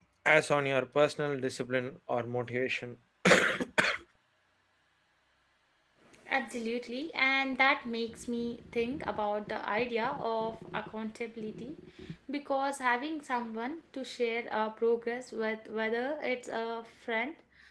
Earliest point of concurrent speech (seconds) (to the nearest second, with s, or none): none